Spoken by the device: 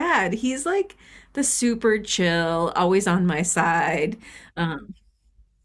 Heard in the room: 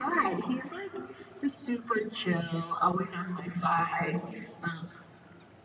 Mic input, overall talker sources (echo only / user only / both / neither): echo only